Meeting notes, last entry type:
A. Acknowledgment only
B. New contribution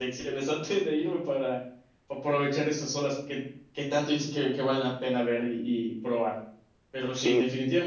A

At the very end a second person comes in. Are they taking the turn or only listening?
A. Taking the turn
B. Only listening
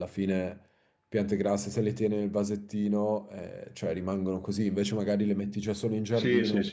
A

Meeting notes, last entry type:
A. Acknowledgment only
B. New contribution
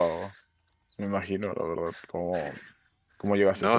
B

